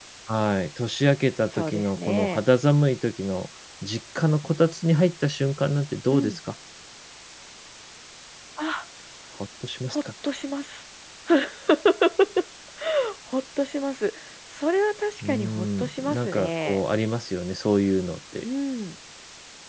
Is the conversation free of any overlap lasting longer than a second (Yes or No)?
No